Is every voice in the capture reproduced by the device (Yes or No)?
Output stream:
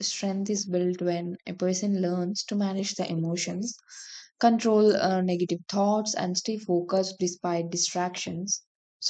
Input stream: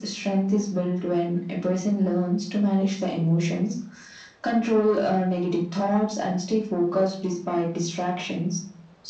Yes